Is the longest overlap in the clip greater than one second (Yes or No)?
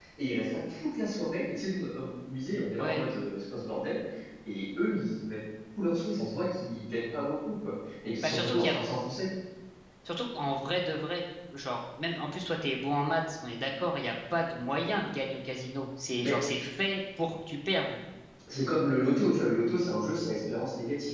No